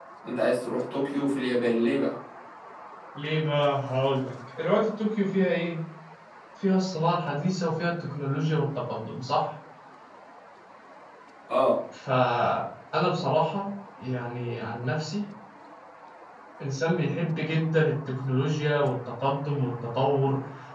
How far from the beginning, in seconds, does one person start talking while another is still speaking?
none

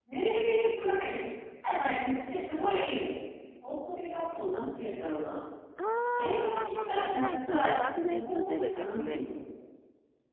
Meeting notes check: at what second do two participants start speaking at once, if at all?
6.2 s

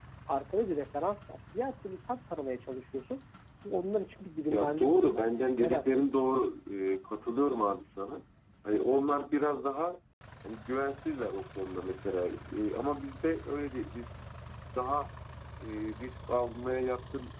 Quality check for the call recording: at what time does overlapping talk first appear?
4.5 s

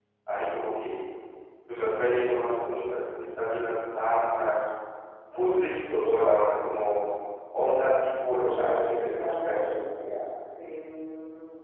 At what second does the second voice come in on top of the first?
8.3 s

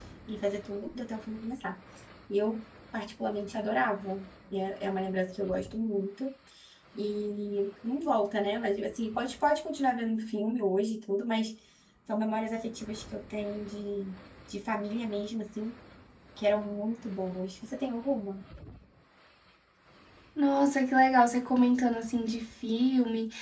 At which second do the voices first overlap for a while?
none

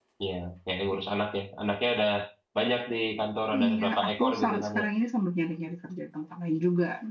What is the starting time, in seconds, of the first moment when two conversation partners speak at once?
3.5 s

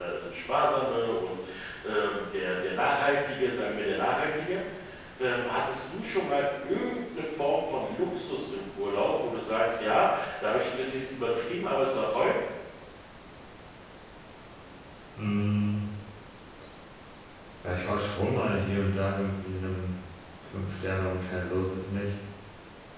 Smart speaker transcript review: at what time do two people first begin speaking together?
none

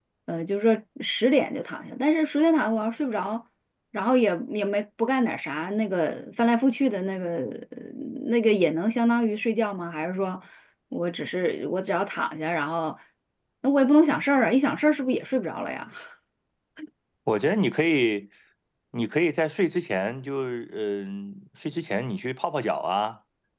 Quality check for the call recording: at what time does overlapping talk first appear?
none

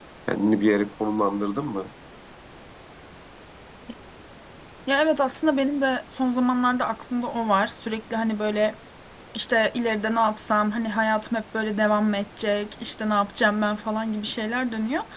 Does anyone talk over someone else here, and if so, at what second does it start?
none

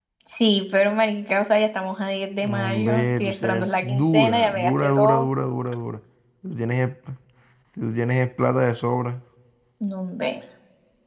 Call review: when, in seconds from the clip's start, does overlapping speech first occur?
2.4 s

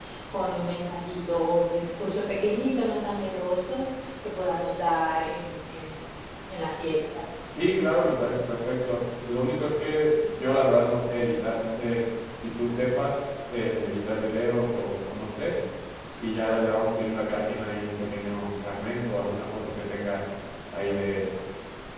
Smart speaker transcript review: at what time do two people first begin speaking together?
none

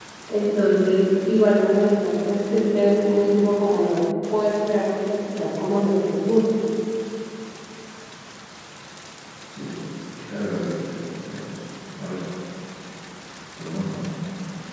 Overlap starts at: none

